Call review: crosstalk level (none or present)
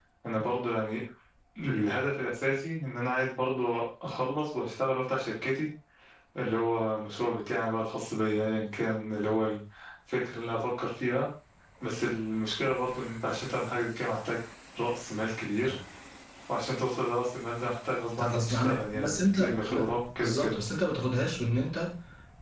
present